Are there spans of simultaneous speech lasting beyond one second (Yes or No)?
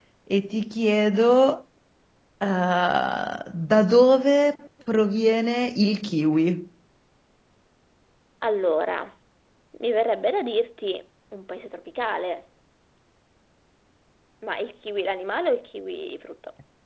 No